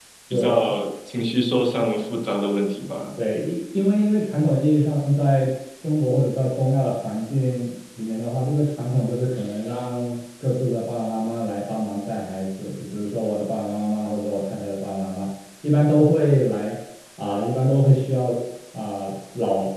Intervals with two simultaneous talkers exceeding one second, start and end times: none

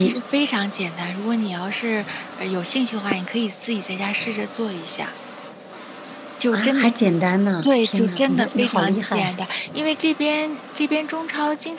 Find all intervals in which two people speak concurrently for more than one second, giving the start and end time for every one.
7.6-9.2

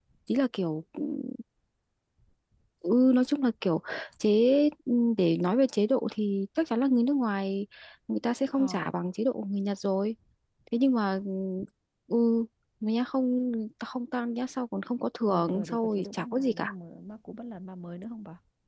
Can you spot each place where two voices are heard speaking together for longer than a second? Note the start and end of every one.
15.3-16.7

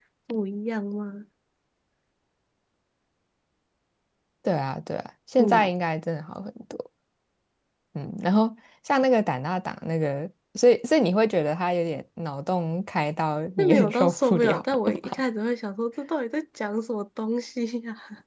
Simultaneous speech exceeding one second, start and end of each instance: 13.6-15.1

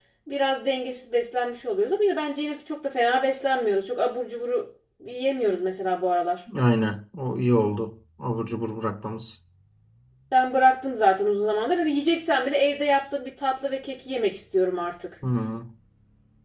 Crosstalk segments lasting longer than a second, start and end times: none

